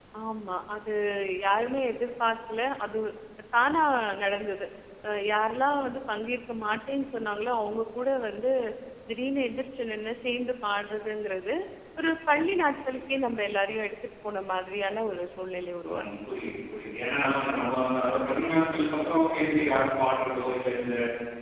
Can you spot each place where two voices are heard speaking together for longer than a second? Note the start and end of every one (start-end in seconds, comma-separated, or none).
none